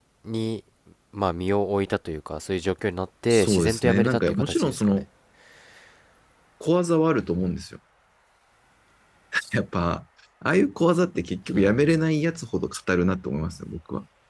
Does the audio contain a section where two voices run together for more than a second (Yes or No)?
Yes